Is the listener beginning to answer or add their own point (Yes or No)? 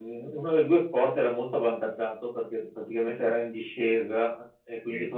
No